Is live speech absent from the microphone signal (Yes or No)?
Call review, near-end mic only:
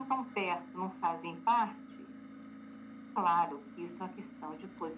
Yes